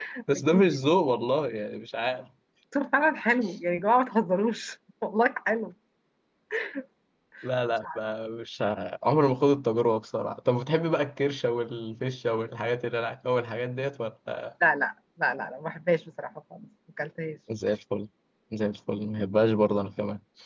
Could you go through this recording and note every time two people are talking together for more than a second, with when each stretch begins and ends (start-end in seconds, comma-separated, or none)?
none